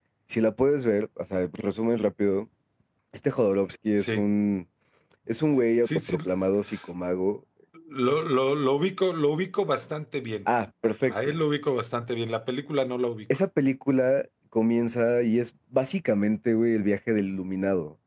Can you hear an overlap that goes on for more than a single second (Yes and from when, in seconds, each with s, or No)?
No